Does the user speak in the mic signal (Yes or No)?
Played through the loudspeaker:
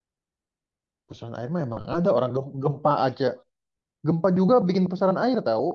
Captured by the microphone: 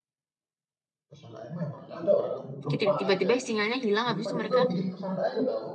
Yes